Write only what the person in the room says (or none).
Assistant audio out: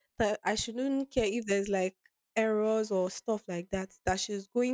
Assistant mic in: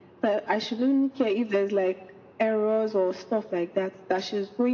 none